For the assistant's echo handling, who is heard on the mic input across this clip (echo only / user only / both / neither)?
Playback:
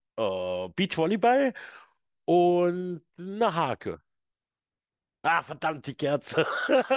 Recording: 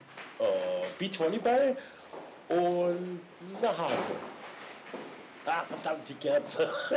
echo only